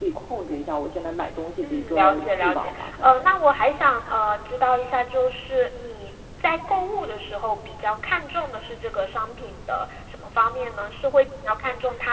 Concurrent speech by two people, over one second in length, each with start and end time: 1.6-3.3

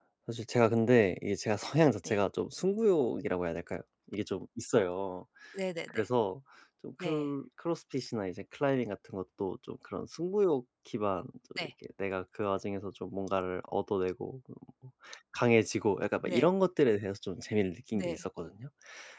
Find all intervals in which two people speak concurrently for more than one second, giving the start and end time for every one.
none

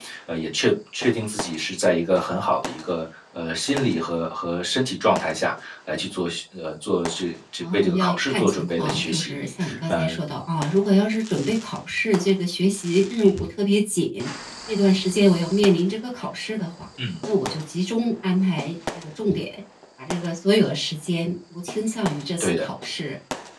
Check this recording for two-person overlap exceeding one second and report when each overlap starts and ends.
7.6-9.4

